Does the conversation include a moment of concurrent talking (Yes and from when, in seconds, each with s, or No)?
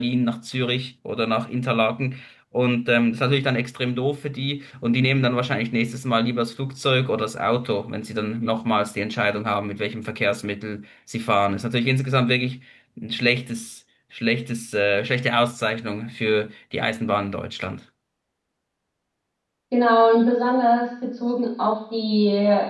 No